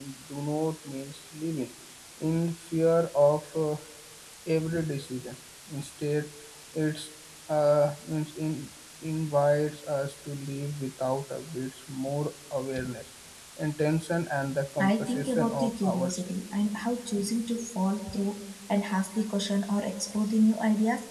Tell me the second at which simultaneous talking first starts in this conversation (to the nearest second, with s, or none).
15 s